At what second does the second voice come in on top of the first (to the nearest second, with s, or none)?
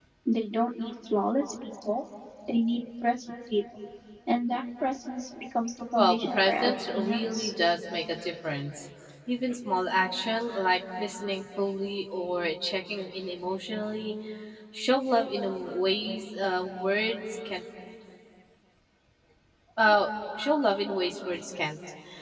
6 s